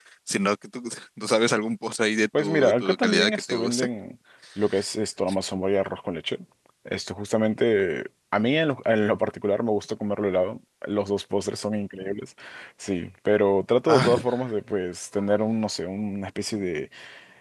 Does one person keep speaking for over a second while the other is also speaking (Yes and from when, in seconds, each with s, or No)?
Yes, from 2.4 s